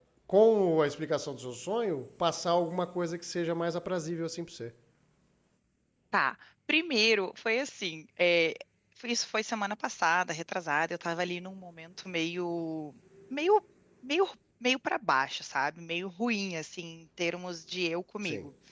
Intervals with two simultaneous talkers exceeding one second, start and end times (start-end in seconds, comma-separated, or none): none